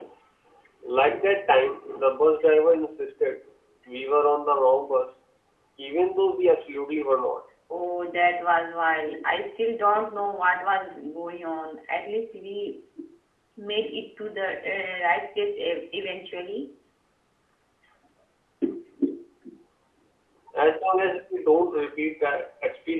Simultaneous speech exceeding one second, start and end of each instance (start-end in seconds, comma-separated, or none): none